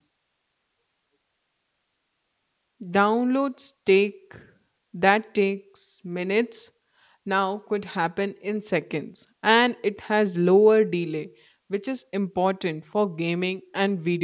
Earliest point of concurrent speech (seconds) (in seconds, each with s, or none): none